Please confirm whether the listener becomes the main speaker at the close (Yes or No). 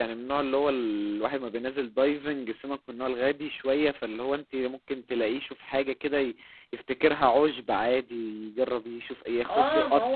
Yes